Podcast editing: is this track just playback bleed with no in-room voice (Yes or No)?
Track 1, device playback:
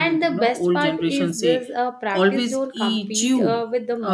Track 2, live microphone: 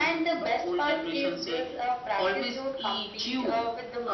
Yes